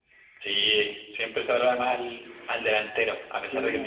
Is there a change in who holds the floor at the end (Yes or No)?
No